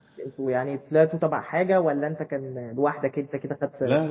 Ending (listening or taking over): taking over